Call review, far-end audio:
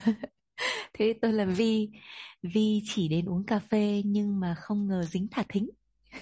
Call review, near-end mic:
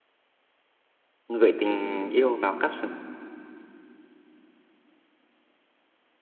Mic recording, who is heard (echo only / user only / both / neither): user only